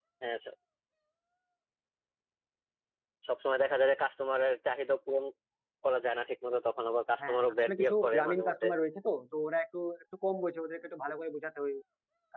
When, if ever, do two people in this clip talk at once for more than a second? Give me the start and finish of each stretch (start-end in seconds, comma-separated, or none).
7.2-8.7